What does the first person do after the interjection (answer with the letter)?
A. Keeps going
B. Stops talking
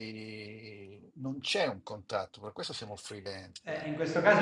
B